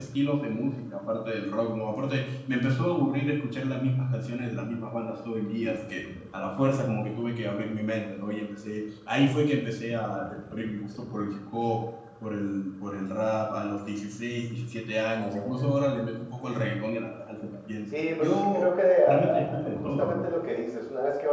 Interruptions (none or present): present